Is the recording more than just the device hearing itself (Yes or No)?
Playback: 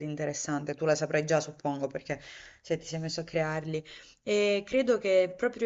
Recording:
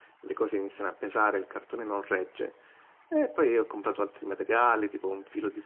Yes